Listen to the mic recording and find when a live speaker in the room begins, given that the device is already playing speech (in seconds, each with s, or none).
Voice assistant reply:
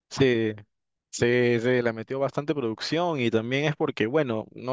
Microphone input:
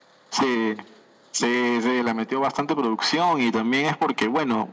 none